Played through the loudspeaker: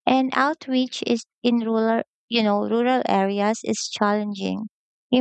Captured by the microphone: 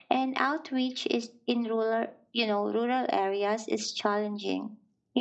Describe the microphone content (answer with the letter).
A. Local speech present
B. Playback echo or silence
B